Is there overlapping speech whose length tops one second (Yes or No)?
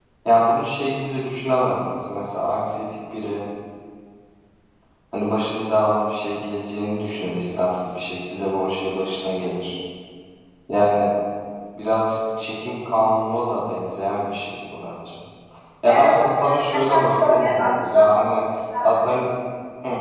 Yes